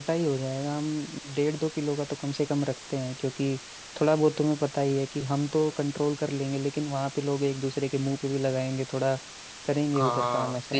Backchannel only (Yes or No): No